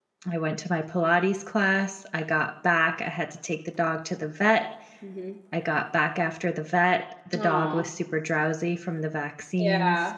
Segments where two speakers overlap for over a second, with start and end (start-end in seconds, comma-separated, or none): none